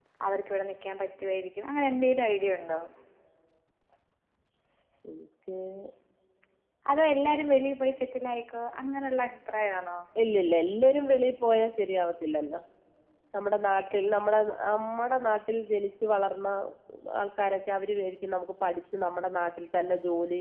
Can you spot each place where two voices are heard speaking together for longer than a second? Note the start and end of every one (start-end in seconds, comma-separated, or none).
none